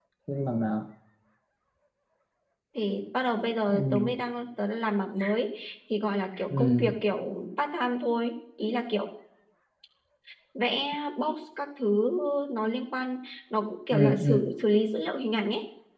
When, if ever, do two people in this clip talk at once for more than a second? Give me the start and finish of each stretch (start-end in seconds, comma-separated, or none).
none